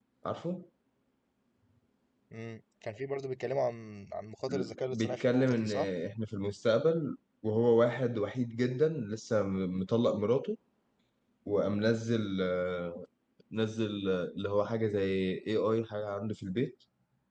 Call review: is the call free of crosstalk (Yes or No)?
No